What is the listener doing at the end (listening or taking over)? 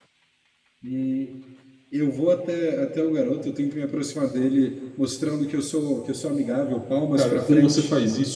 taking over